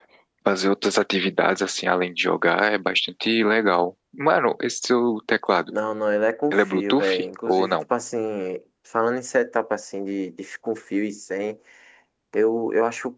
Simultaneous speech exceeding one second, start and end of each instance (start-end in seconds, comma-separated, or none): 6.5-7.8